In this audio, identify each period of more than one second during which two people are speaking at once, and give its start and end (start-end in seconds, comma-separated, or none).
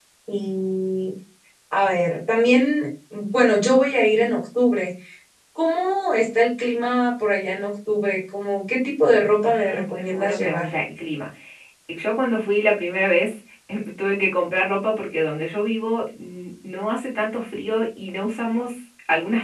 9.4-10.7